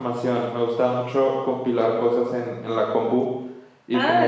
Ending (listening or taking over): taking over